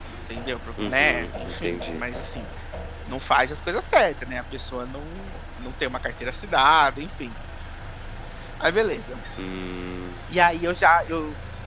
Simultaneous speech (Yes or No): Yes